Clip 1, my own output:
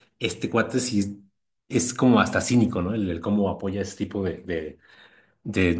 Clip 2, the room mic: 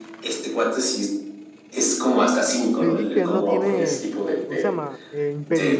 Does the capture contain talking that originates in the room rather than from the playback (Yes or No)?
Yes